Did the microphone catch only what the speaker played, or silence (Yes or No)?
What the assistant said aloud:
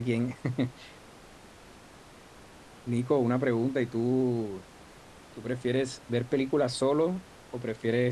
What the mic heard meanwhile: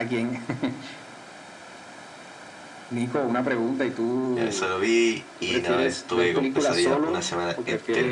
No